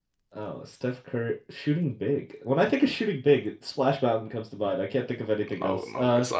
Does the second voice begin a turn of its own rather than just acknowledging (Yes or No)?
Yes